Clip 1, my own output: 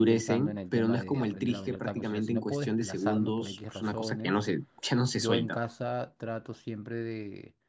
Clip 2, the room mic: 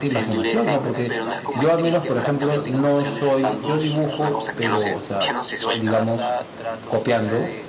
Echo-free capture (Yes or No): No